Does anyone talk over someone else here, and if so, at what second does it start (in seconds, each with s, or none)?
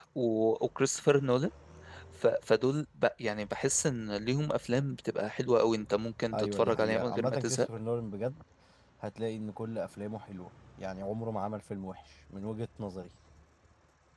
6.3 s